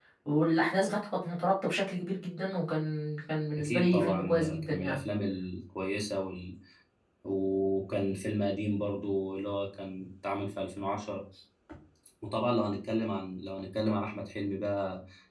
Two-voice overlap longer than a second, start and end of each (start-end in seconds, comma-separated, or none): 3.6-5.0